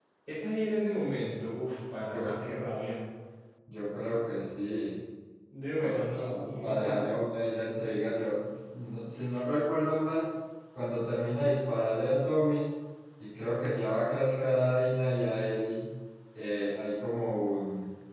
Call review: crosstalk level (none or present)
present